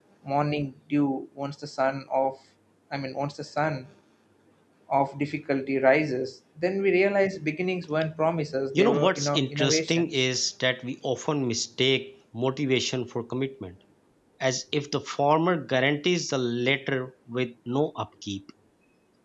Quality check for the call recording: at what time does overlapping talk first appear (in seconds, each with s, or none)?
8.7 s